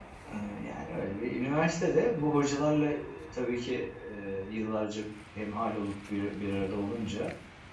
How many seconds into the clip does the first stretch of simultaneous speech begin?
none

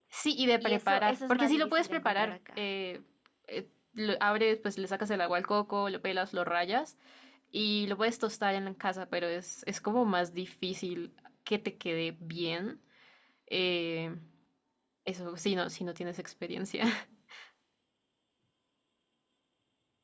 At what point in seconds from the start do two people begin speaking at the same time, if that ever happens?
0.6 s

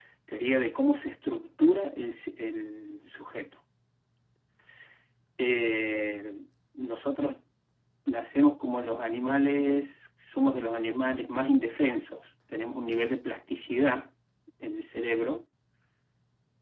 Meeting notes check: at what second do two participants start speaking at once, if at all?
none

